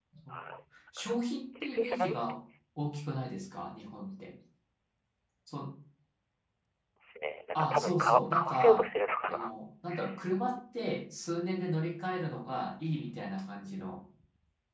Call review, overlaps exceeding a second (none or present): present